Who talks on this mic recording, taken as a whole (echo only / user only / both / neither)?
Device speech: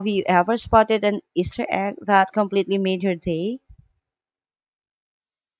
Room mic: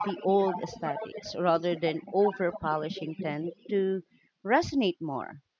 both